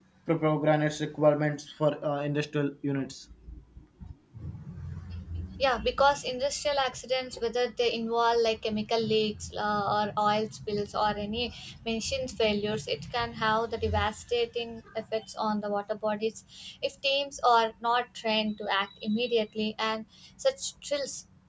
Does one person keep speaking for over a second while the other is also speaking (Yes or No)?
No